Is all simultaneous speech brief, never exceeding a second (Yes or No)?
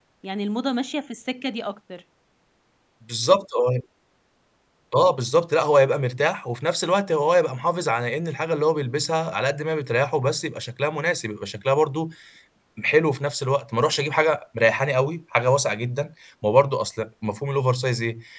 Yes